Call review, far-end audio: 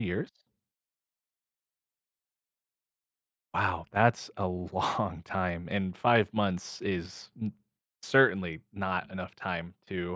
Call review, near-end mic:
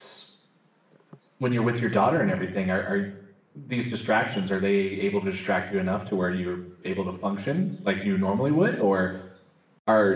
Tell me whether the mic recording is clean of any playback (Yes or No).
Yes